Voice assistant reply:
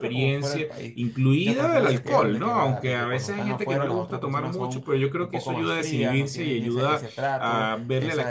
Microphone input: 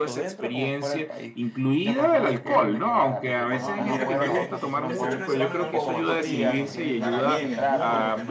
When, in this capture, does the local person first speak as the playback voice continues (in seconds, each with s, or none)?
3.4 s